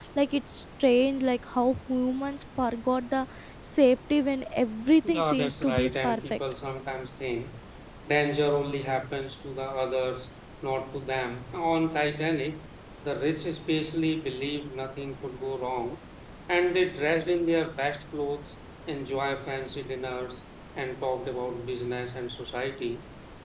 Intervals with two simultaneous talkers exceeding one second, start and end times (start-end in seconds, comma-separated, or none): 5.0-6.4